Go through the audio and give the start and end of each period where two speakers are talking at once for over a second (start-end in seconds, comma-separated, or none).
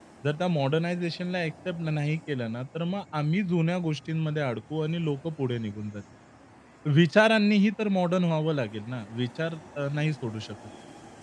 none